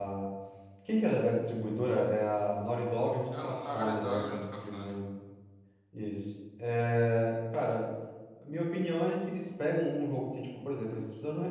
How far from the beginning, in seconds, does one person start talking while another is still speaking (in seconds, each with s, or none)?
3.3 s